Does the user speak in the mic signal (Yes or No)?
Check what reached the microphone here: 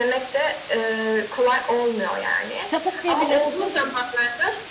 Yes